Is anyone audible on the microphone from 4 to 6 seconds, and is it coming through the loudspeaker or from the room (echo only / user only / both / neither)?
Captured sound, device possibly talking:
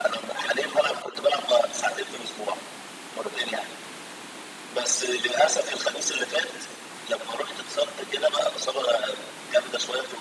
echo only